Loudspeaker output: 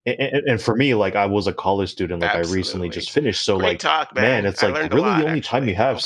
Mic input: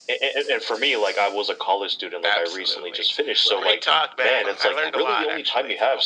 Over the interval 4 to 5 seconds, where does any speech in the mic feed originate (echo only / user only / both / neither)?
both